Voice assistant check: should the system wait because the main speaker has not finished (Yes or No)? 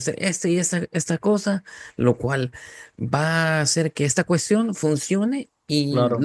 Yes